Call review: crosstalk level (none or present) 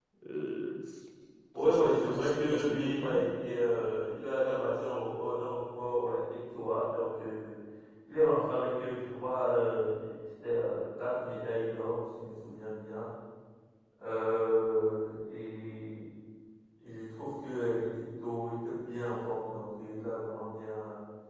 present